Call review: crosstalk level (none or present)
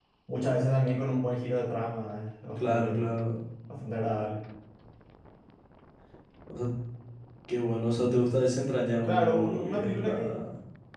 present